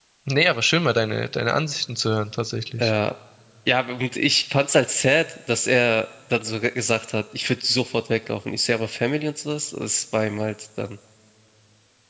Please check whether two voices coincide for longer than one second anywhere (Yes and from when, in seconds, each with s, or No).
No